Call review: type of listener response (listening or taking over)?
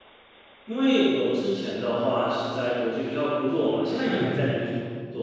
listening